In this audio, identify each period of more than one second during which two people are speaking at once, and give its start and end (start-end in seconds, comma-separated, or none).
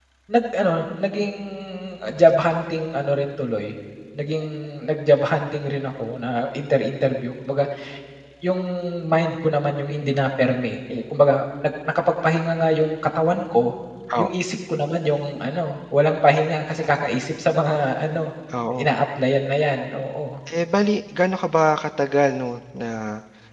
none